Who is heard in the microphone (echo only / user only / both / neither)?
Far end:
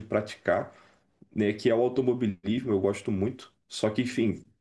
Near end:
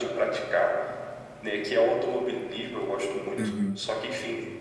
both